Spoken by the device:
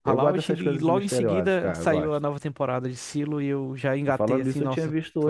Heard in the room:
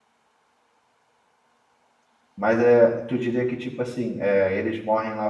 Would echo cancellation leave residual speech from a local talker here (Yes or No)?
Yes